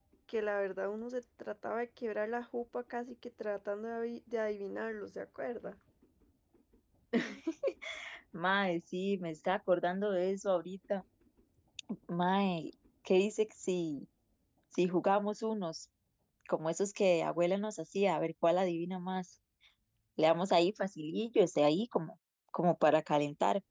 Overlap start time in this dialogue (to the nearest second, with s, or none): none